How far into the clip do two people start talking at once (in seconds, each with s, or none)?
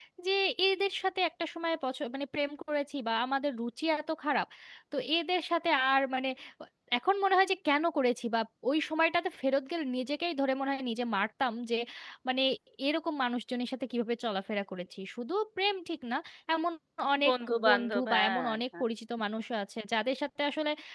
17.2 s